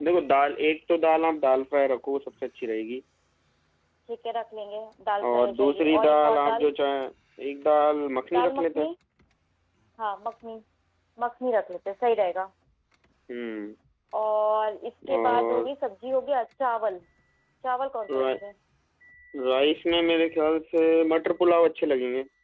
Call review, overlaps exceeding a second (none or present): present